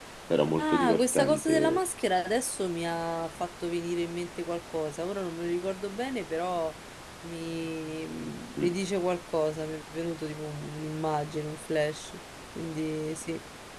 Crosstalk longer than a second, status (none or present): present